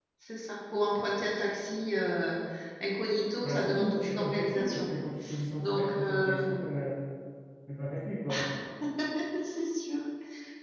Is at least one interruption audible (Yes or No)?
Yes